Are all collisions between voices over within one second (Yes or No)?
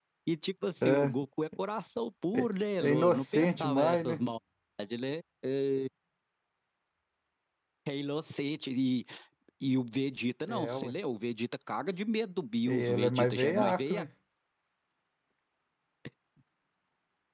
No